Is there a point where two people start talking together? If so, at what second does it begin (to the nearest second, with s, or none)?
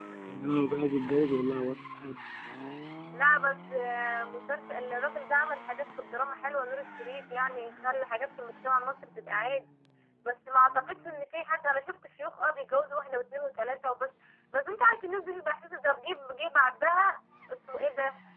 none